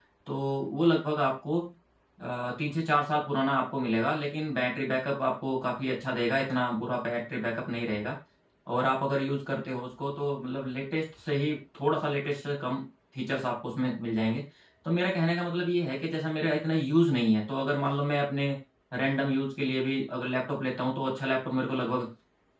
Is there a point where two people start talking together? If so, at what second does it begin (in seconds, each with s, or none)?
none